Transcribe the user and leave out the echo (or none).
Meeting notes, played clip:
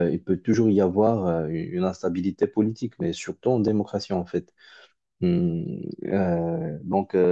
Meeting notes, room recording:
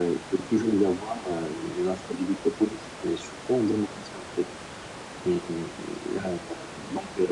none